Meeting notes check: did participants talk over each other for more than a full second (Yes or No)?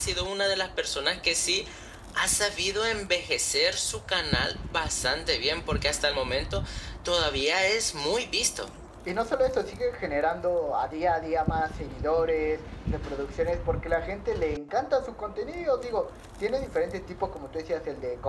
No